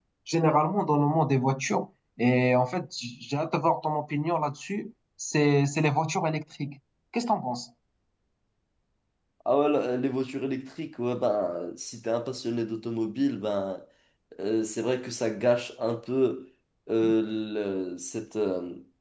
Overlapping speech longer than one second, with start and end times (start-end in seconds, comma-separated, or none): none